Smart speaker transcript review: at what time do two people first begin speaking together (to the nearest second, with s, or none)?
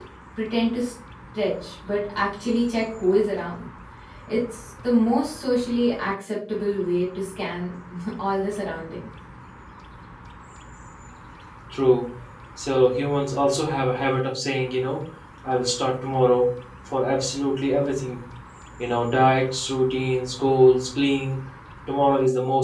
none